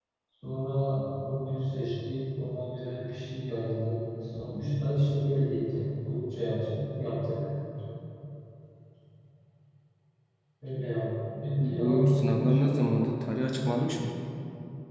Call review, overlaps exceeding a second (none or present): present